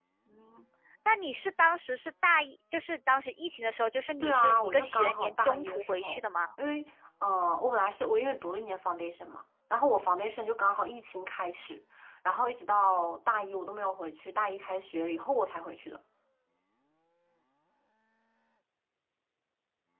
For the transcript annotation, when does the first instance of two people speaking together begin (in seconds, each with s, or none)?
4.2 s